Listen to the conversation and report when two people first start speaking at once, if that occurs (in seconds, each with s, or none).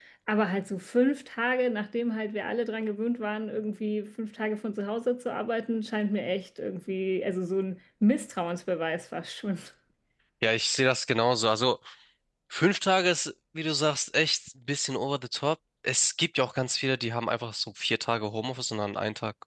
none